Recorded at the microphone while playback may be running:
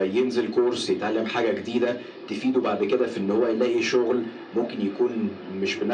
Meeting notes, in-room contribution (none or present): none